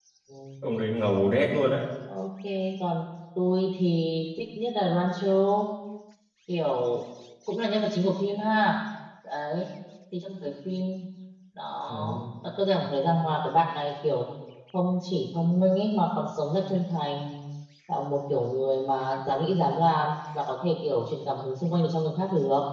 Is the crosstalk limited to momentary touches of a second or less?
Yes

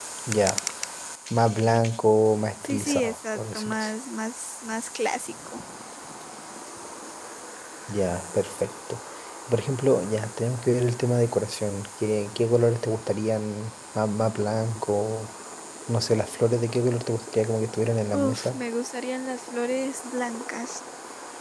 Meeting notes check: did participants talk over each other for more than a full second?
Yes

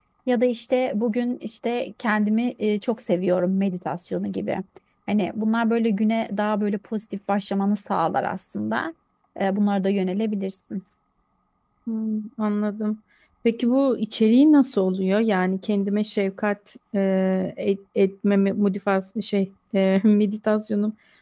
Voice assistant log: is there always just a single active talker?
Yes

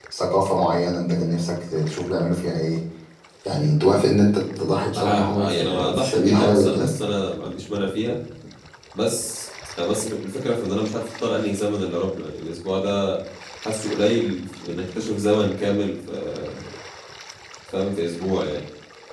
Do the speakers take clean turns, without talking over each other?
No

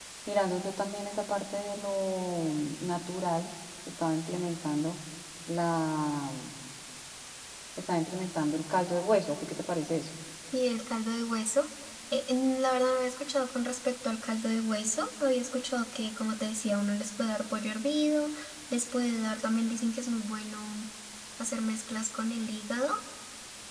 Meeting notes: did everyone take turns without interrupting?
Yes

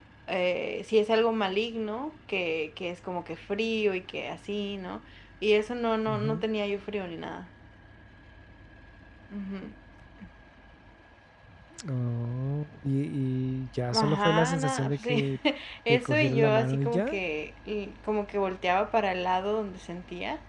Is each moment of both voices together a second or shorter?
No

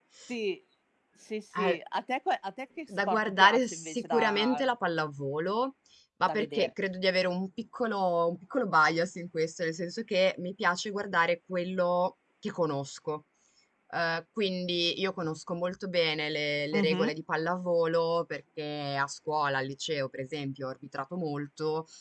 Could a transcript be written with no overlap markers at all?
No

